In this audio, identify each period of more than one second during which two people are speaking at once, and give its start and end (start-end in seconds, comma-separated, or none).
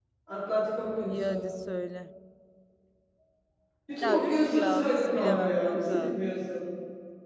4.0-6.2